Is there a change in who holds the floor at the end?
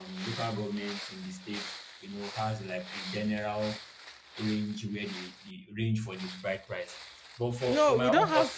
Yes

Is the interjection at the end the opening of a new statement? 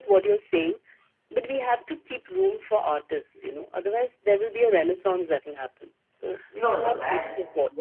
Yes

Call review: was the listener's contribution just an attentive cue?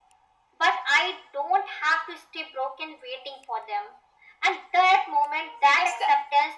Yes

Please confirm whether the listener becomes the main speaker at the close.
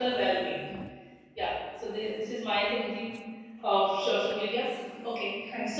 No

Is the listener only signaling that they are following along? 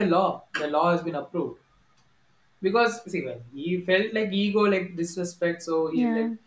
Yes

